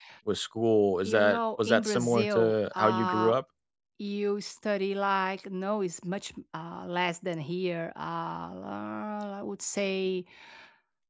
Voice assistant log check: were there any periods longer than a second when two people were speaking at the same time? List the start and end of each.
1.1-3.3

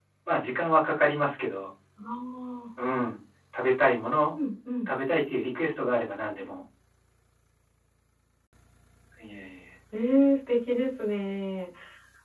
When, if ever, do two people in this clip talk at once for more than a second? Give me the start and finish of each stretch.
none

